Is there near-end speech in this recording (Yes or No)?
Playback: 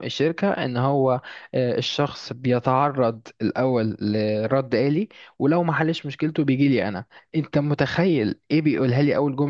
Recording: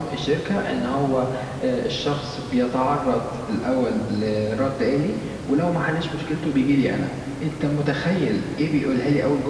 No